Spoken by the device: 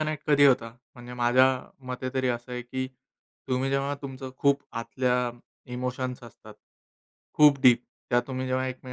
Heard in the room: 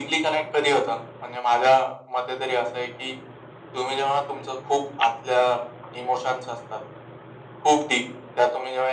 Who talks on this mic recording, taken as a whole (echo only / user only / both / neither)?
echo only